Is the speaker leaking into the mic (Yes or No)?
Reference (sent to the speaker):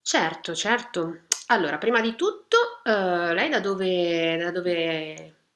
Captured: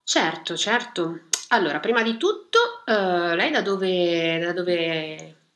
Yes